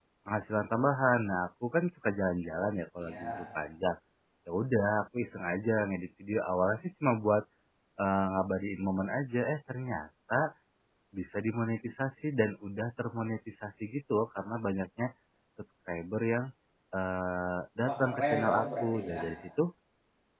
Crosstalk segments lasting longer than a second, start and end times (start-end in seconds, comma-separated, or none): 17.9-19.2